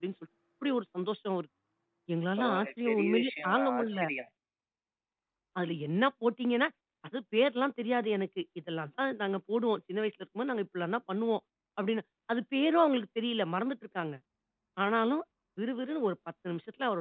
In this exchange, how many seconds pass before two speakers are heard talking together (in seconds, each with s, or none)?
2.4 s